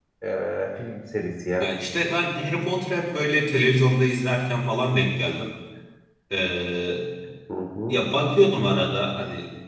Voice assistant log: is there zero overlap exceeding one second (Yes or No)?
Yes